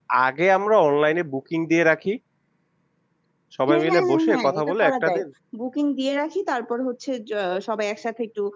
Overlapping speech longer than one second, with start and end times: 3.7-5.2

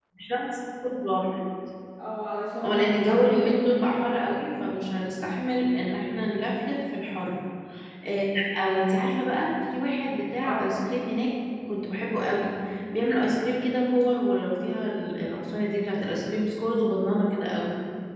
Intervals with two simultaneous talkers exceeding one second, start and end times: 2.6-4.0

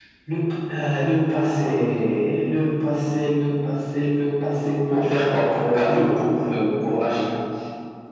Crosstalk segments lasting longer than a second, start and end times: none

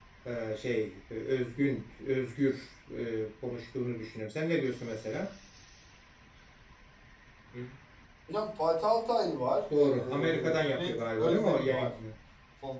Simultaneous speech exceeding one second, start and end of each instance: 9.8-11.9

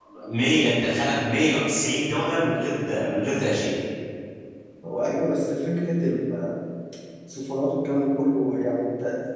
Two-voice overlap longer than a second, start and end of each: none

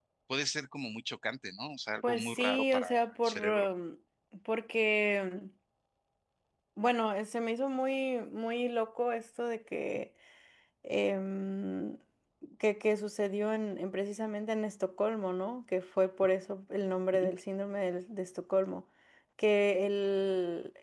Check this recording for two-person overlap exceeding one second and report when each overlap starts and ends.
2.0-3.7

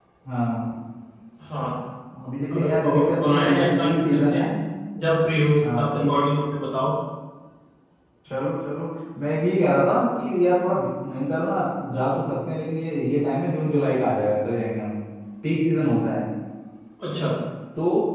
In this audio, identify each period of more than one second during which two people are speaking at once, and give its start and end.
2.5-4.4

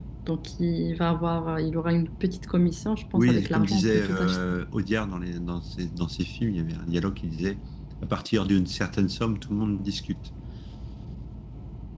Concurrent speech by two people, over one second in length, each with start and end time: 3.1-4.4

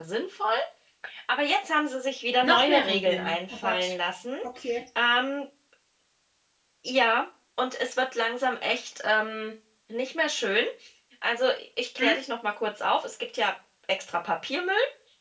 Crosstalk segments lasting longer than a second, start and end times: 2.4-4.0

